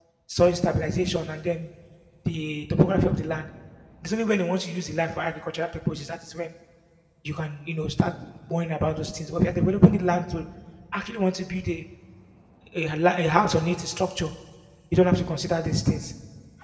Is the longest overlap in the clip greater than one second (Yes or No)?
No